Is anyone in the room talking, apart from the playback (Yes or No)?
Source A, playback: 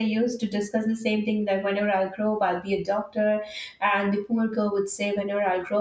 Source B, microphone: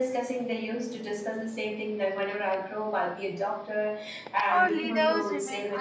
Yes